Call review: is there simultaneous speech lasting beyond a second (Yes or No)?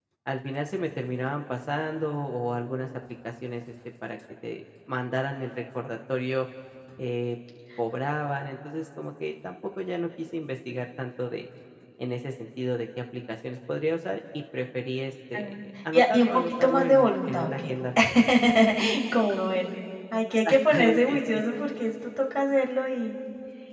Yes